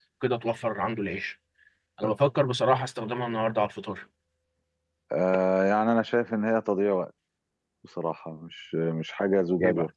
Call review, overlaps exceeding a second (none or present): none